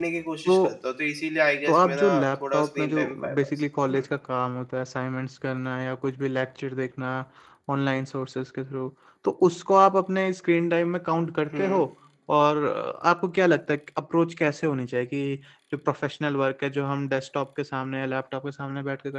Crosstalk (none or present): present